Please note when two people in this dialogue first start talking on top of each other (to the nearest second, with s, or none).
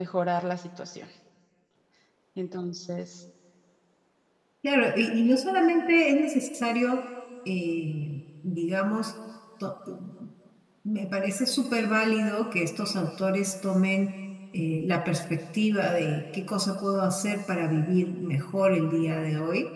none